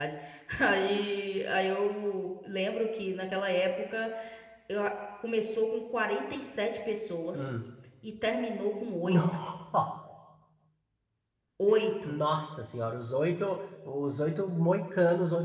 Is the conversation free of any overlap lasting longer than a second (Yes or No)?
Yes